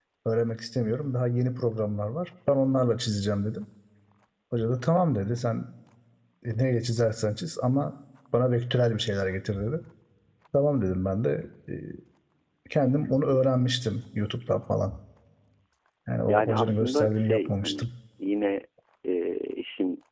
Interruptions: present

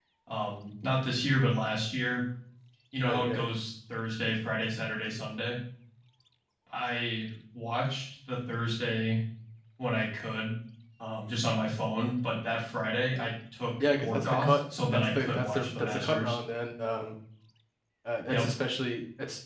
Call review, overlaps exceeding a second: present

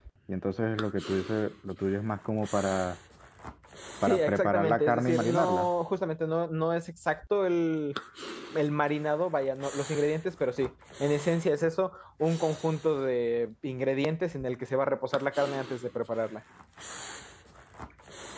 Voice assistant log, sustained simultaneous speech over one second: present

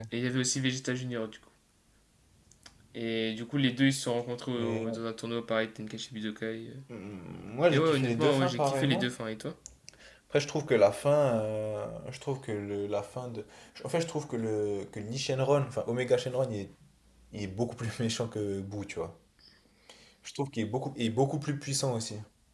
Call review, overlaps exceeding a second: present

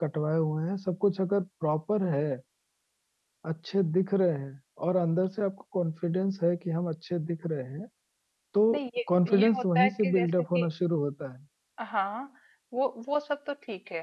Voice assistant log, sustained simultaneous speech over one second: present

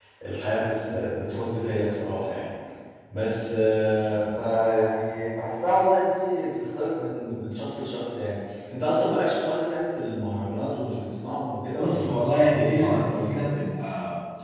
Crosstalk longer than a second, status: present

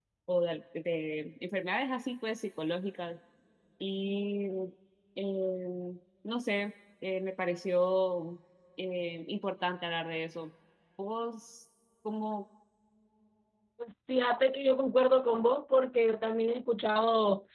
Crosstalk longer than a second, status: none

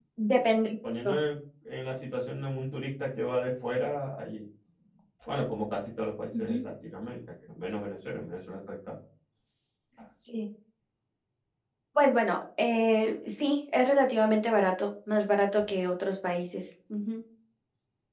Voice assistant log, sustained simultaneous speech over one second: none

